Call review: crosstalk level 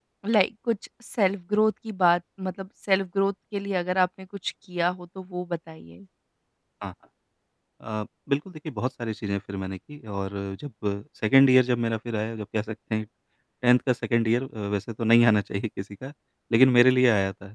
none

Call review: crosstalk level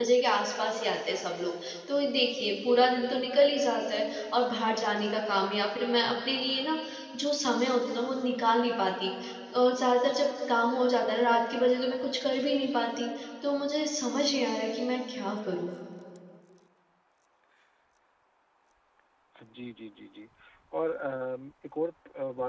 none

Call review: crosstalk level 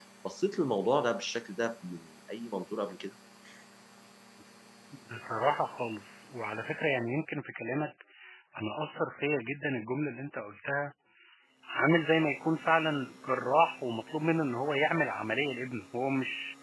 none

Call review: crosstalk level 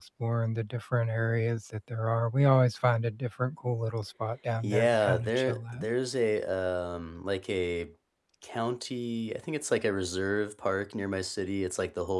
present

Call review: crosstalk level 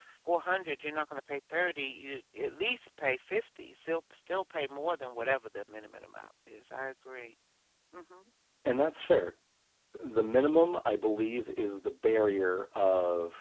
none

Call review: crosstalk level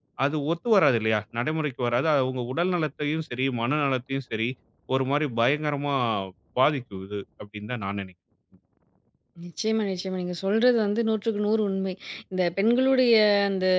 none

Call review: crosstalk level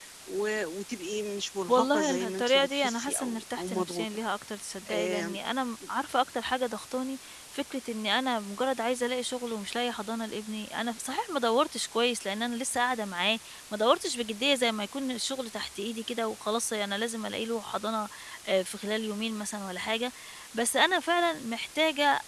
present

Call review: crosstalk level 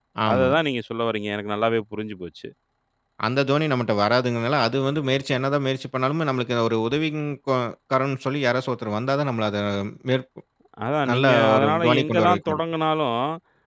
present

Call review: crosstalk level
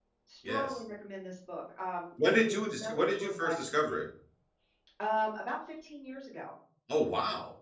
present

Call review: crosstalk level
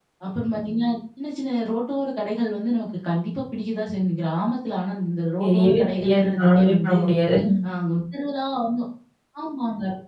present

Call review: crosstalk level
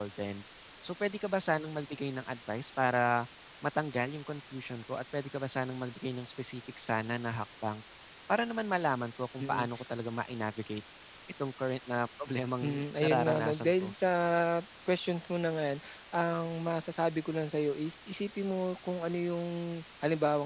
present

